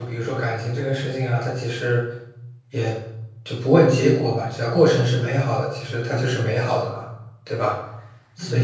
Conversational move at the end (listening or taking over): taking over